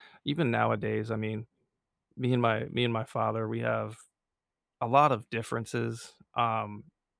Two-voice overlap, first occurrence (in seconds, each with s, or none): none